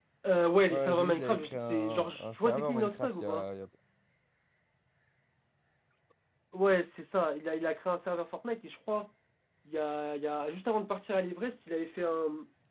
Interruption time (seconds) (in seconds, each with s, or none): 0.7 s